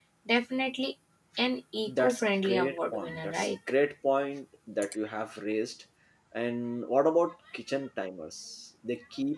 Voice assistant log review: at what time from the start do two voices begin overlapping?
1.9 s

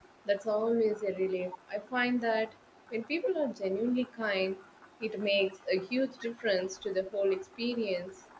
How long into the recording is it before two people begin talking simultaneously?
none

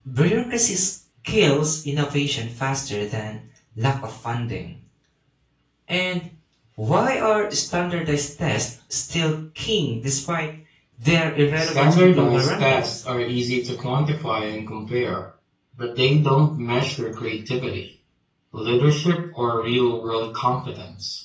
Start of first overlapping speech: 11.6 s

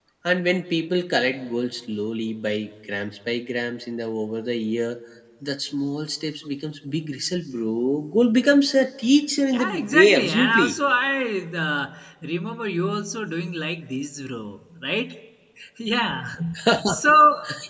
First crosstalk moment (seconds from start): 9.5 s

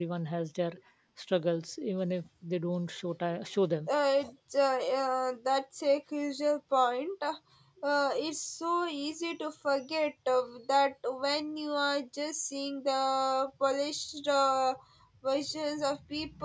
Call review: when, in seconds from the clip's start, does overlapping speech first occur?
none

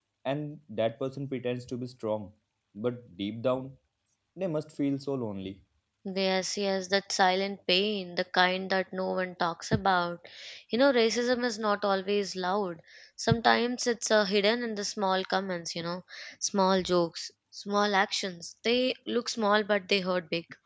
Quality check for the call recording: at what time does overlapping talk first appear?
none

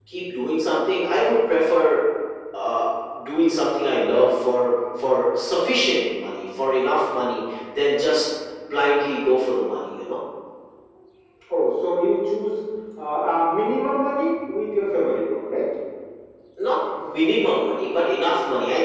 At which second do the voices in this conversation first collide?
none

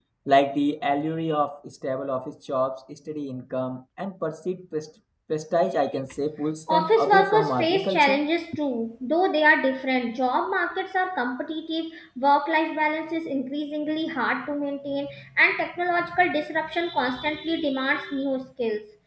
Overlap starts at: 6.7 s

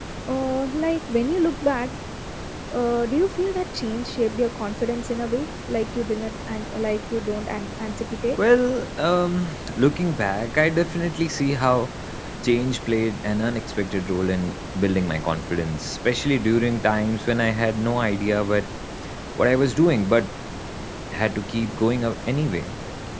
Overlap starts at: none

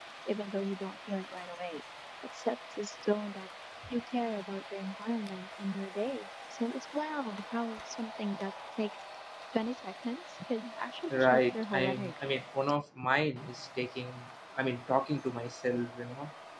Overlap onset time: 11.1 s

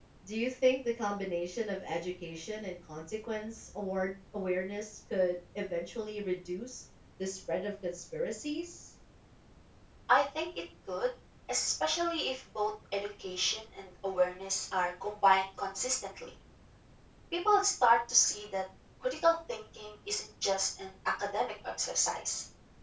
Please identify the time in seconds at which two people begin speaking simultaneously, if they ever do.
none

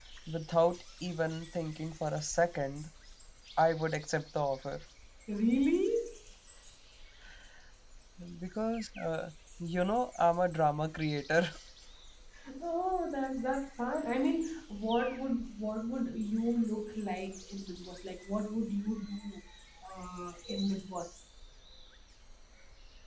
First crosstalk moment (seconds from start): none

